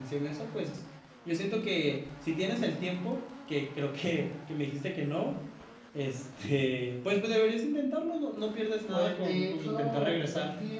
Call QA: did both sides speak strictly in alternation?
No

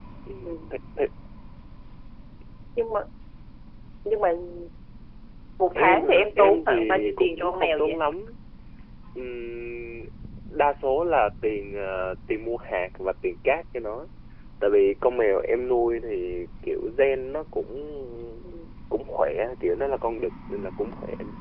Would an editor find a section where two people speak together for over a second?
Yes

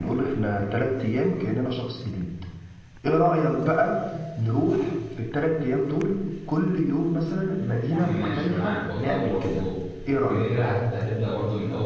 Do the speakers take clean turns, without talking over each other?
No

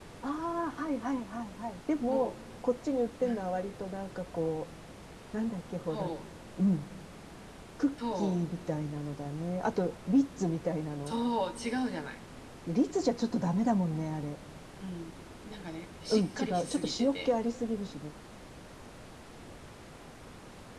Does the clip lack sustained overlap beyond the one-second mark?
No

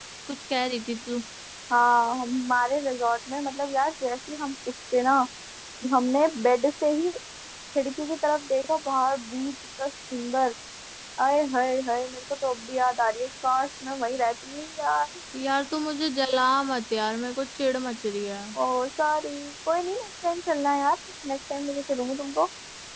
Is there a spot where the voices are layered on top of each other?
No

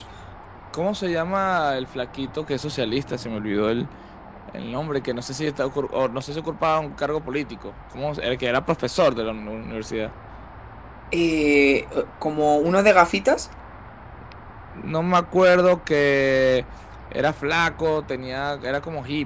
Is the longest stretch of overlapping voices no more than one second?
Yes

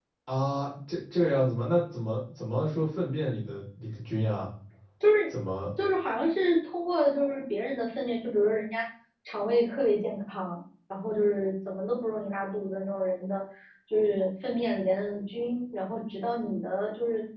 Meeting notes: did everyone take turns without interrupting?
Yes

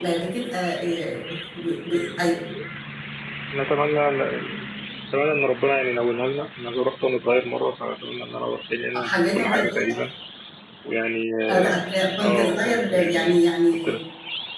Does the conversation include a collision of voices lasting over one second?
Yes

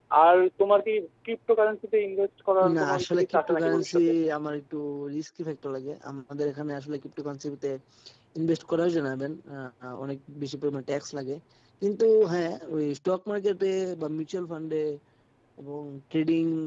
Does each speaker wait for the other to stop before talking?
No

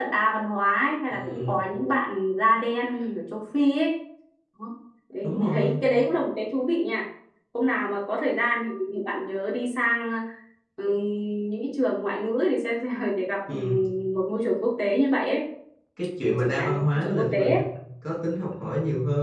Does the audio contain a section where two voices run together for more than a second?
Yes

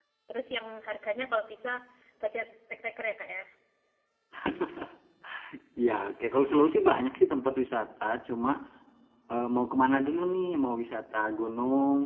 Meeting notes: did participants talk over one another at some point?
No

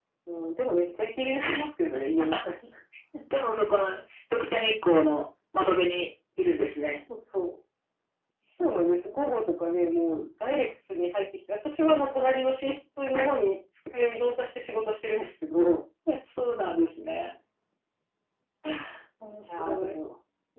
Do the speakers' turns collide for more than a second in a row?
No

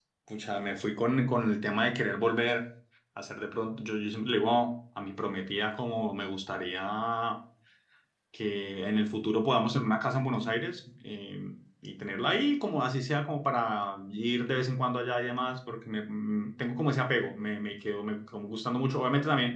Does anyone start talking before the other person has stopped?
No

